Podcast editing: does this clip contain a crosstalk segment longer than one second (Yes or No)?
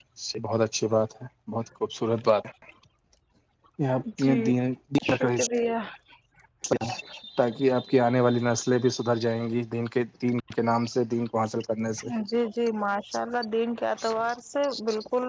No